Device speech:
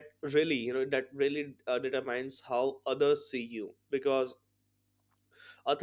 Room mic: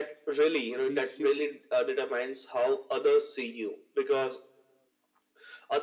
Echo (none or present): present